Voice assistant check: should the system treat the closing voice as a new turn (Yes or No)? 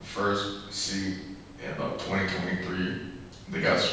No